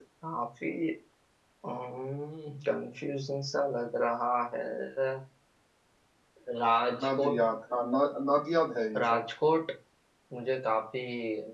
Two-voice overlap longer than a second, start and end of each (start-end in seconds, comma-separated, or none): none